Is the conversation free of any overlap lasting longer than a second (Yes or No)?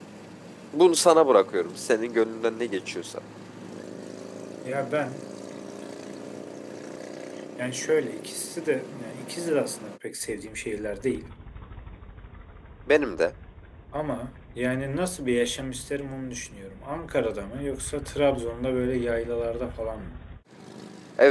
Yes